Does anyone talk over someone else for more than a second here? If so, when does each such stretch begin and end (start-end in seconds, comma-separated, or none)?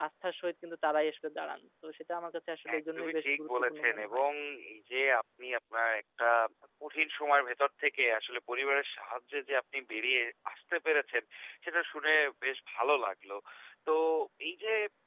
2.8-4.2